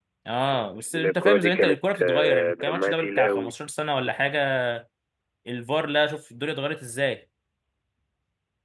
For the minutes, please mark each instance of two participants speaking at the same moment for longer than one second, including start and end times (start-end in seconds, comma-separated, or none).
0.9-3.5